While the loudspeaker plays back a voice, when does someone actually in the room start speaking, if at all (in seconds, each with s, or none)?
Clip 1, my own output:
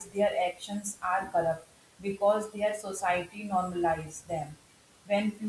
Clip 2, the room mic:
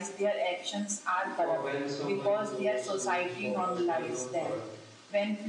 1.4 s